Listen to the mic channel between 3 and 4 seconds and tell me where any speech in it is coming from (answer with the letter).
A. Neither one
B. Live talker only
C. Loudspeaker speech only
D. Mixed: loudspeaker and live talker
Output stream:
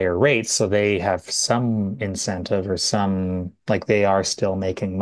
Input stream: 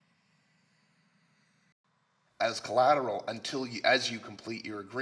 B